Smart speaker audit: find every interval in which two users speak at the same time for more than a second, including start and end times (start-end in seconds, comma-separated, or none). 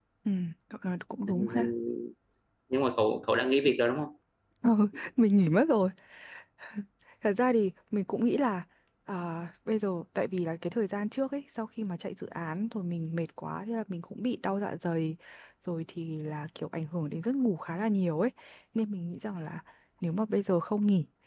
none